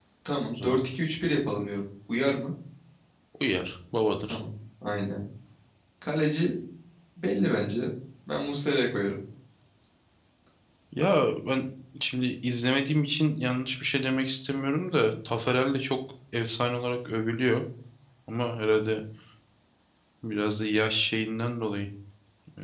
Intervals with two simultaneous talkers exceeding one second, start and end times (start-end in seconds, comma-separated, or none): none